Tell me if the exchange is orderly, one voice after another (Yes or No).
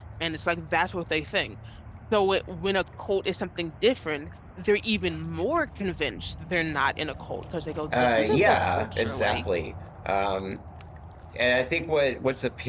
No